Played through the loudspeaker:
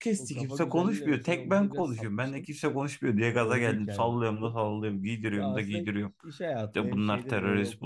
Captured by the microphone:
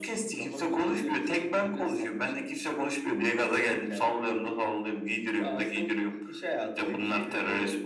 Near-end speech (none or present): none